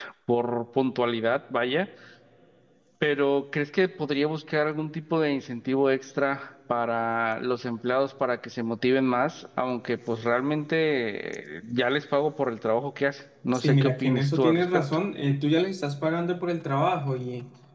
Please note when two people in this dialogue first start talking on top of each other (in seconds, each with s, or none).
13.5 s